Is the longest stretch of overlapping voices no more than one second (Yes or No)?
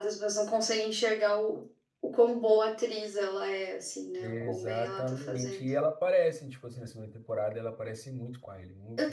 No